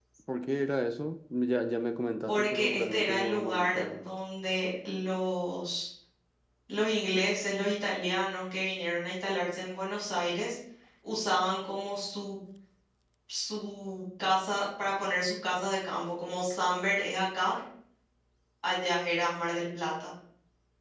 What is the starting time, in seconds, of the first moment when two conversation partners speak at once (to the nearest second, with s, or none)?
2 s